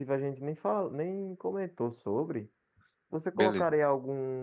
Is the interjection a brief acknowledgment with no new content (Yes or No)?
Yes